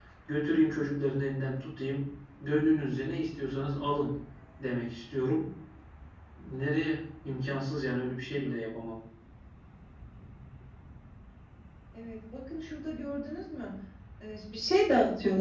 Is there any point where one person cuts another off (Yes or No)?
No